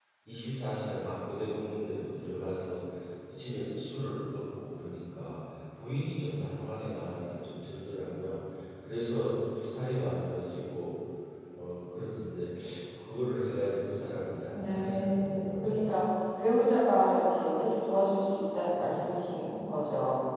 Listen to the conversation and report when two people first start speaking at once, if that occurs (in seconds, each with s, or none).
14.5 s